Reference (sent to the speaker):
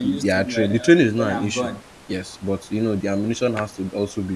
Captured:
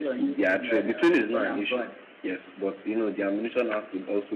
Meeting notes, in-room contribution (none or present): none